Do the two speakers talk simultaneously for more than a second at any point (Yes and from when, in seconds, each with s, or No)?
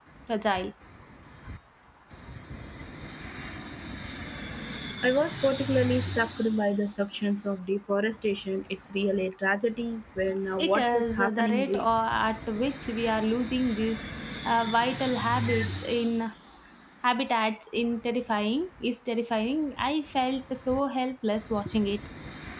Yes, from 10.6 s